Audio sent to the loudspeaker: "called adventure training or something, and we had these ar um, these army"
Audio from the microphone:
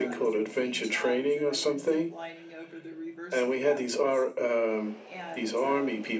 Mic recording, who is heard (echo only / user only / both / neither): both